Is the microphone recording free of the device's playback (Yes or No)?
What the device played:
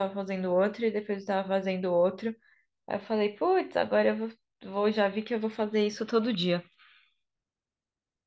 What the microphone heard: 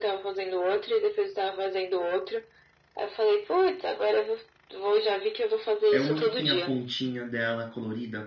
No